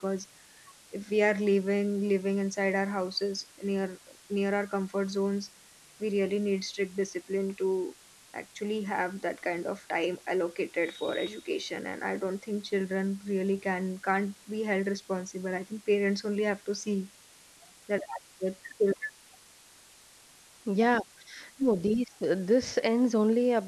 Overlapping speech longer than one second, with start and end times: none

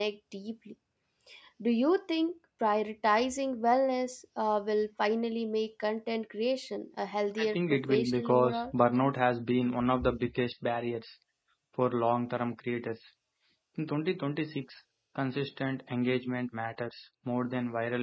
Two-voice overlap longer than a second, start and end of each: 7.4-8.7

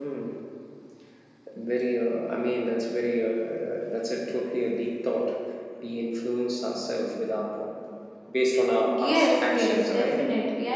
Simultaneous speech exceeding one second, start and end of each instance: 8.9-10.2

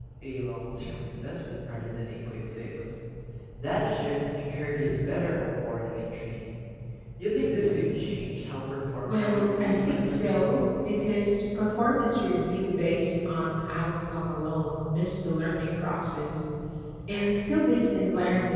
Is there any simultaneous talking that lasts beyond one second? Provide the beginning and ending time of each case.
9.0-10.3

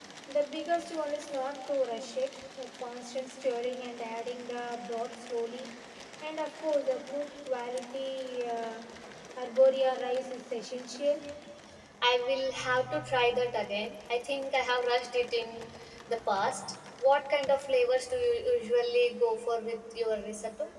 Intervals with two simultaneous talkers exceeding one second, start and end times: none

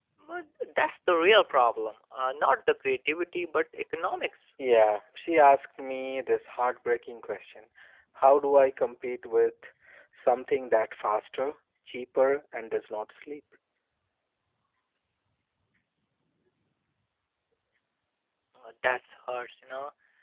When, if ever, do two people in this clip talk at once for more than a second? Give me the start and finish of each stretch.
none

